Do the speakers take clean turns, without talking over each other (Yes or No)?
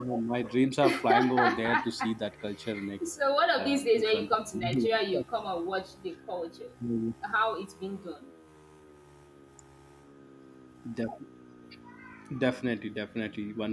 No